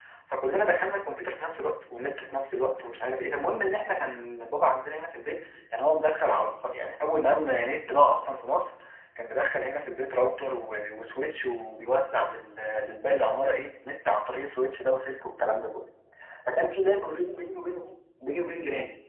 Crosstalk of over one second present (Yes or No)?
No